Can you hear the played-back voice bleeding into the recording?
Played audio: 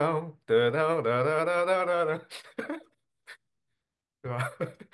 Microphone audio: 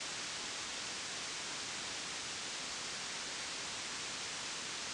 No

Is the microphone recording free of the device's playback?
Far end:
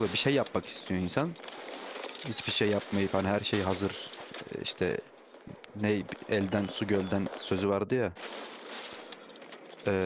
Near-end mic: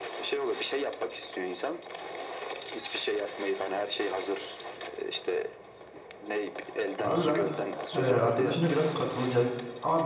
No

